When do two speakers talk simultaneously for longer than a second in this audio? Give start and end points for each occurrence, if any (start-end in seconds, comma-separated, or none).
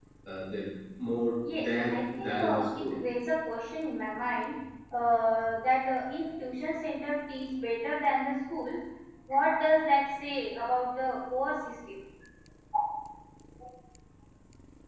1.6-3.0